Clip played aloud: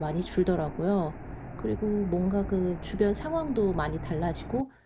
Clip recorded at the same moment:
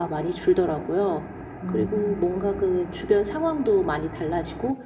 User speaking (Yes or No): Yes